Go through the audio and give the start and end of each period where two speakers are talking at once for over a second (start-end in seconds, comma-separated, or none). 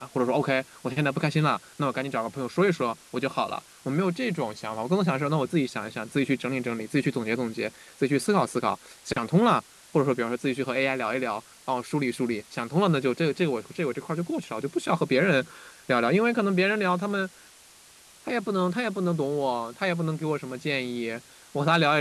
none